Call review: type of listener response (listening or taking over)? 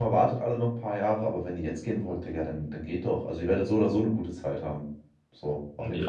taking over